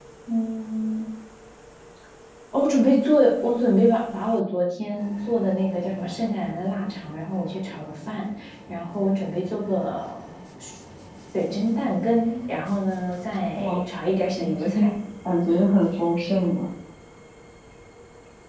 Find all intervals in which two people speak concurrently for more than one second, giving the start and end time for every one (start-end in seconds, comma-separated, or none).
none